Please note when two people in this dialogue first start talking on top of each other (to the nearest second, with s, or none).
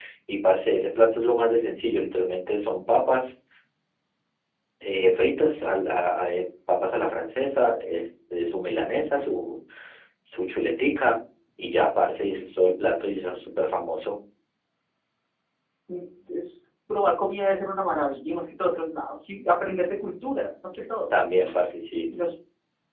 none